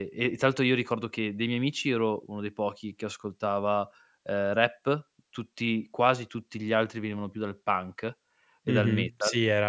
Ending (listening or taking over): taking over